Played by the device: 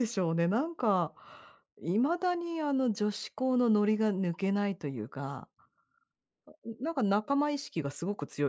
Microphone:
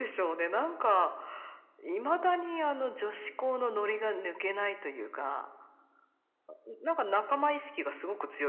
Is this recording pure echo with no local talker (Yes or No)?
Yes